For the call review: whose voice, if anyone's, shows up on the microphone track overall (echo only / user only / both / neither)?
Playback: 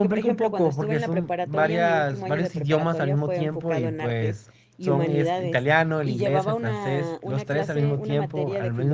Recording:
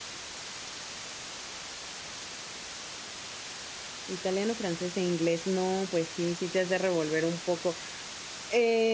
user only